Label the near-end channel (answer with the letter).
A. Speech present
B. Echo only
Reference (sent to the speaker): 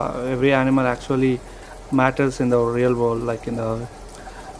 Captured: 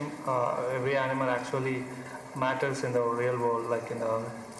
B